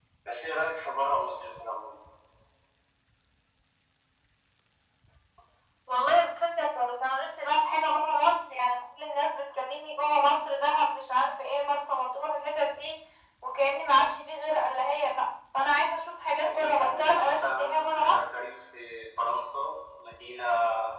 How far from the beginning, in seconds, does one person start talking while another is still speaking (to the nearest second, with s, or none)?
16 s